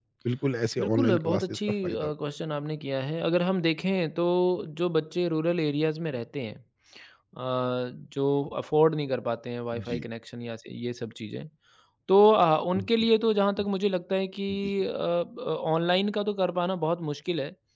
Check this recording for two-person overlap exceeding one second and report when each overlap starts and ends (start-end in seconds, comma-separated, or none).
0.8-2.1